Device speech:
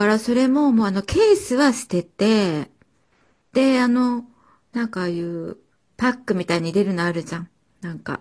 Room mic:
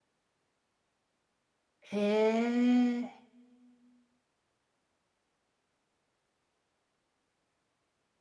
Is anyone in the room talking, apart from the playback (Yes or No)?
Yes